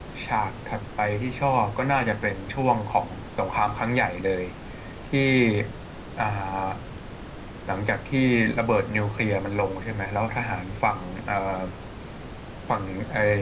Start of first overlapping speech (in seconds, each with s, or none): none